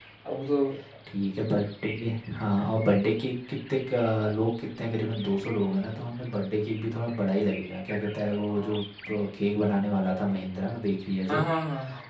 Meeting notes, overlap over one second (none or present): none